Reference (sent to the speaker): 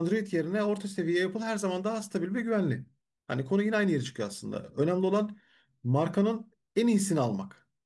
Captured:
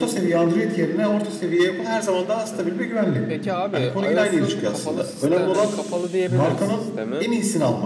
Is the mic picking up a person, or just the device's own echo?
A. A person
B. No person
A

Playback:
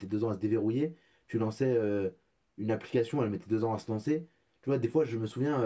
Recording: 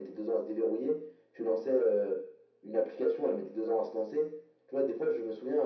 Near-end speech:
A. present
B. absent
B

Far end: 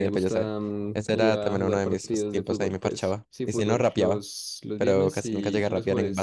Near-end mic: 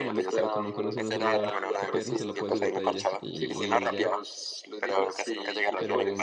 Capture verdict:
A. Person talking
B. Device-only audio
A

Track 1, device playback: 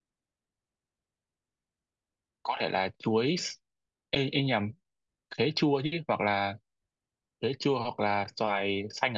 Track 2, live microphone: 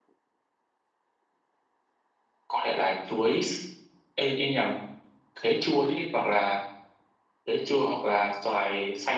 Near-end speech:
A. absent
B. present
A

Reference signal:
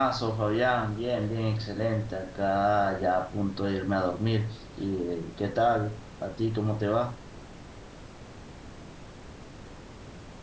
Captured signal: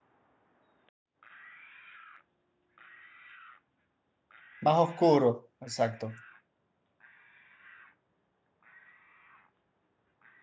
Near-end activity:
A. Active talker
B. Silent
A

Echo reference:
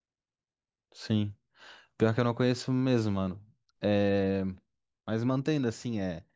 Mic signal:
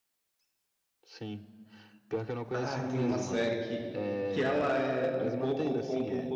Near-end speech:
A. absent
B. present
B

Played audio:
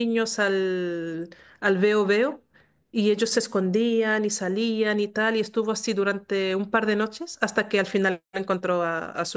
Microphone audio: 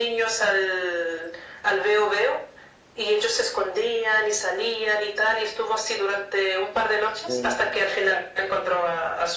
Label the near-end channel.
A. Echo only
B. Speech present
B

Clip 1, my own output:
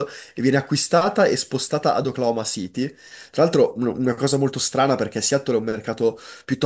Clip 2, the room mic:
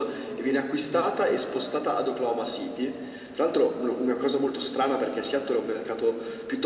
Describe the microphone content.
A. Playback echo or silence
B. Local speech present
B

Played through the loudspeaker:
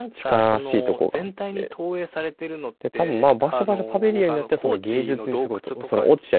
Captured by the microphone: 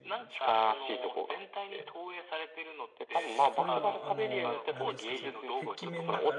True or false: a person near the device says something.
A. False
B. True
B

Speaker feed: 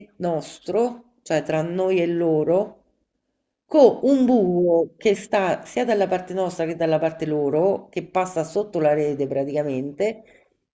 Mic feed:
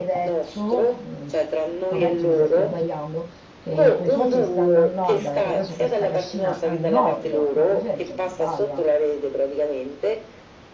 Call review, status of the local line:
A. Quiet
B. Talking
B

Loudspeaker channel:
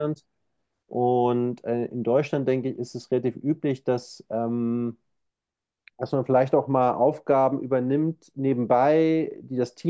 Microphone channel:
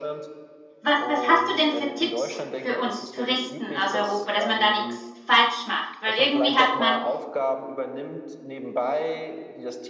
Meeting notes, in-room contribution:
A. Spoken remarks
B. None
A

